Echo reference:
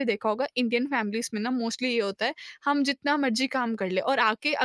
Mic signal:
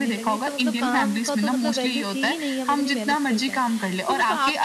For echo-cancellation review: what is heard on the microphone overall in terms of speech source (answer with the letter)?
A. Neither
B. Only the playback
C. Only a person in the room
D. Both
D